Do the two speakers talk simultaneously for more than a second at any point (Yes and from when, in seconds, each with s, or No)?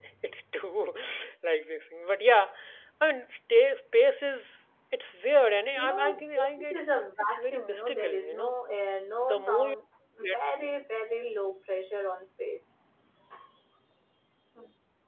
Yes, from 5.7 s